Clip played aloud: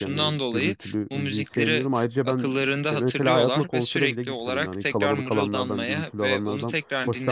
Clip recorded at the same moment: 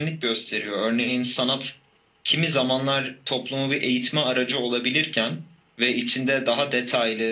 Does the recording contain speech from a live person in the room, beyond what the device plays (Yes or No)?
Yes